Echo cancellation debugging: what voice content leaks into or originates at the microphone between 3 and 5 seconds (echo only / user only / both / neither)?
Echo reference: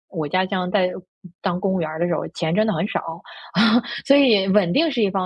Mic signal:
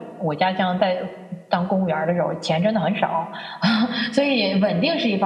echo only